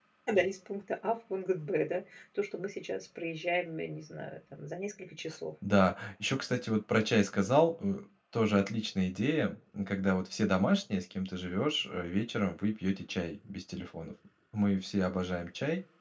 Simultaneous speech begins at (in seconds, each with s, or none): none